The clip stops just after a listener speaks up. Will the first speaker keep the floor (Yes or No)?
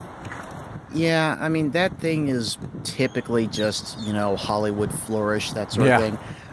Yes